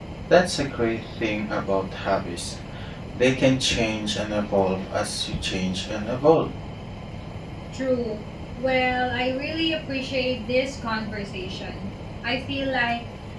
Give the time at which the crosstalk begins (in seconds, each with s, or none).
none